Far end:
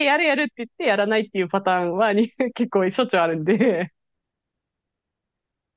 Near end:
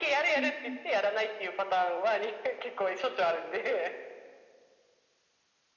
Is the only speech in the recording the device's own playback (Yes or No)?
No